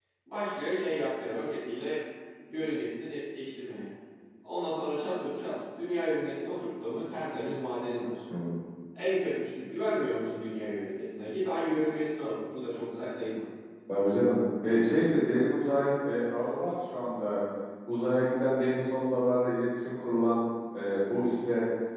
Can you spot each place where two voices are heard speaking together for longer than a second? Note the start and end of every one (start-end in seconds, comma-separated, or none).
none